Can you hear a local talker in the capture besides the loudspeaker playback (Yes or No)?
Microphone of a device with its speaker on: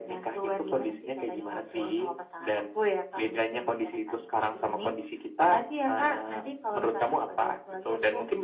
No